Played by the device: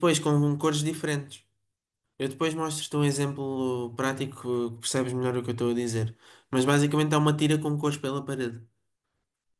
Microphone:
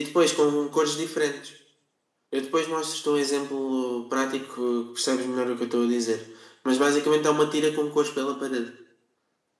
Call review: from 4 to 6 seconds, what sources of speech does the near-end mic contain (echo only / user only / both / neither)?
echo only